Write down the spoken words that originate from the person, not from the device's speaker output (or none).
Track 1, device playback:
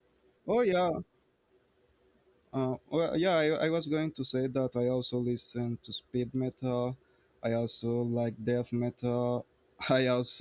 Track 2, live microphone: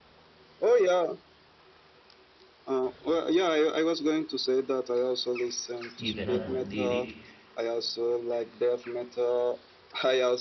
even a good lyric